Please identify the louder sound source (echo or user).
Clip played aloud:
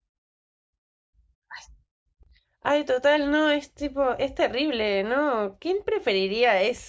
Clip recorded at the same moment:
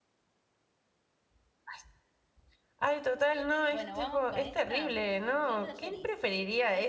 echo